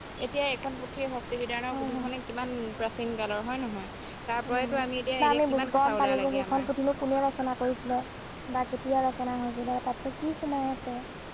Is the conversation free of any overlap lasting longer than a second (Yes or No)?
No